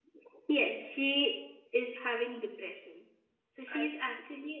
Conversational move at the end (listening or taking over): listening